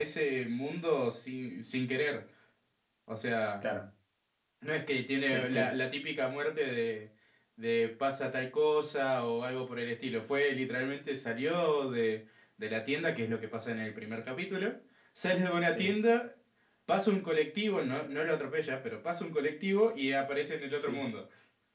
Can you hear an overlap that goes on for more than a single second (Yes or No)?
No